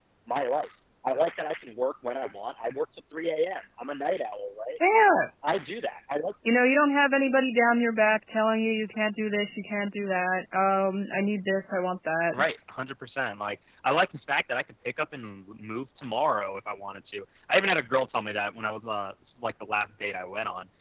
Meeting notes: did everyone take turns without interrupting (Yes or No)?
Yes